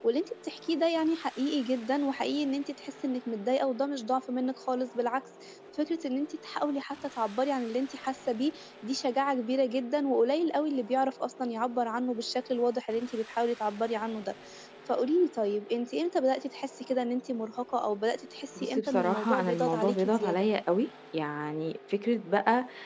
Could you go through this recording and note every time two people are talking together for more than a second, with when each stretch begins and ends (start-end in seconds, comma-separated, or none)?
18.6-20.5